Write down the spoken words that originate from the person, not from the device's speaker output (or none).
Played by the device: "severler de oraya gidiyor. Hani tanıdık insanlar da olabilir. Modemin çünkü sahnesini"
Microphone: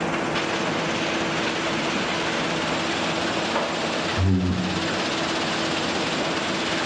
Hmm.